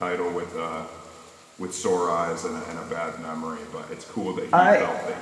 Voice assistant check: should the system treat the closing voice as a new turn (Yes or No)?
No